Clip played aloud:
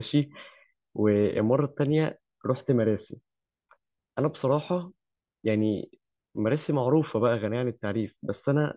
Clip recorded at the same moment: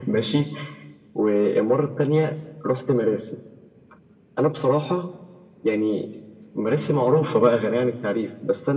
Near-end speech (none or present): none